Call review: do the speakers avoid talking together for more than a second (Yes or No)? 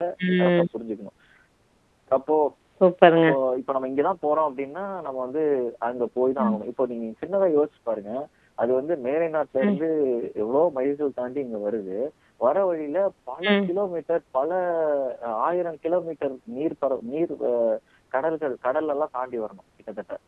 Yes